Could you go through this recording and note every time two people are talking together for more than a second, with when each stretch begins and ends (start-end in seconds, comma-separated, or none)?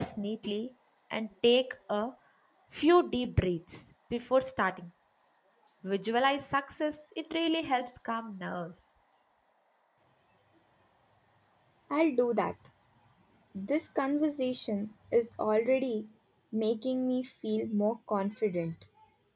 none